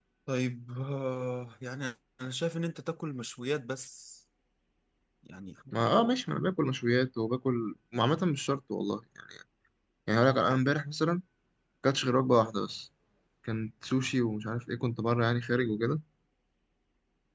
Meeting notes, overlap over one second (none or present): none